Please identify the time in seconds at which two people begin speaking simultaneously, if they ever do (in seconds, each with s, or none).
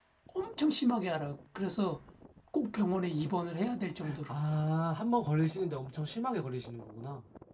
none